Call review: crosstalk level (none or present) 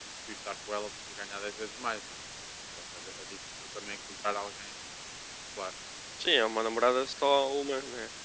none